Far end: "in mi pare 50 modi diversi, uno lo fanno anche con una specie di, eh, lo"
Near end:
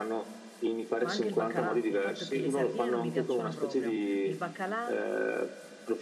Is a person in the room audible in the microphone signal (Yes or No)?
Yes